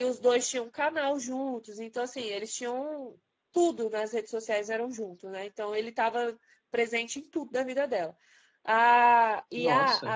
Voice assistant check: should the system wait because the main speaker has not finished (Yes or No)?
Yes